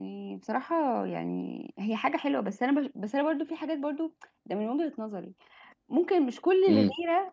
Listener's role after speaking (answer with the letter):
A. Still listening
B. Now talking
A